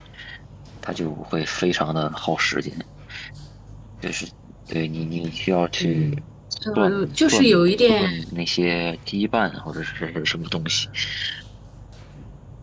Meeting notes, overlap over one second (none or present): present